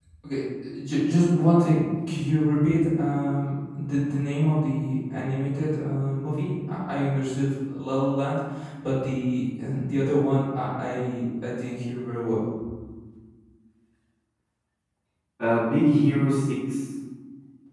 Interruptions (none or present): none